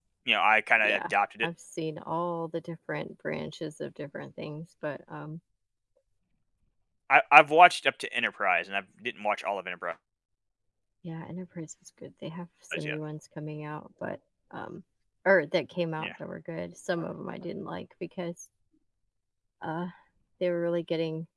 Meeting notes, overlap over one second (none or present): none